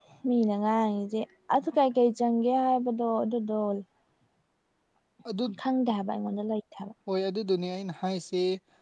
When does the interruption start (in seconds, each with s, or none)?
none